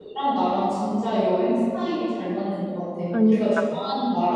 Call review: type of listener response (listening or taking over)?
listening